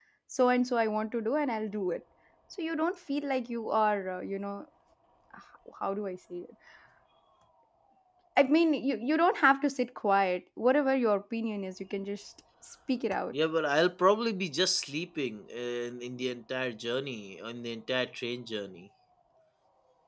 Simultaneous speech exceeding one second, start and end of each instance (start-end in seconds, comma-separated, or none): none